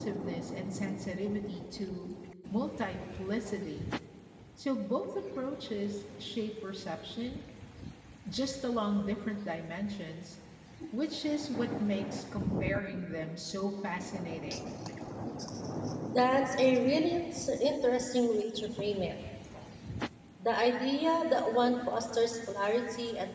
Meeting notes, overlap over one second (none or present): none